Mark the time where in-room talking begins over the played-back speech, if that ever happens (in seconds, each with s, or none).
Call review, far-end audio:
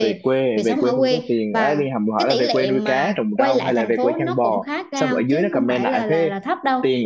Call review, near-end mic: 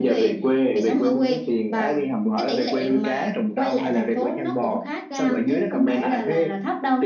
none